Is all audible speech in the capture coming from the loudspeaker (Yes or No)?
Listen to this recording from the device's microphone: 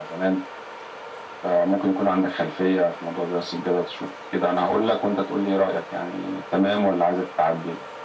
Yes